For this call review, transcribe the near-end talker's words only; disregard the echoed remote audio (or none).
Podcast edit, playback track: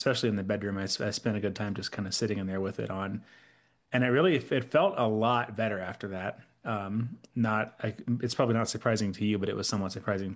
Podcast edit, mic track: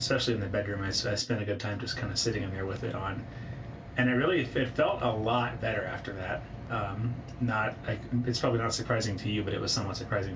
none